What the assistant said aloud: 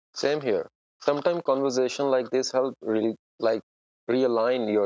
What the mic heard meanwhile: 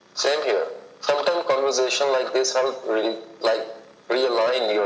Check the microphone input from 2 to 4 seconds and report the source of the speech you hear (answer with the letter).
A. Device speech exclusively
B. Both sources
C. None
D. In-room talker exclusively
A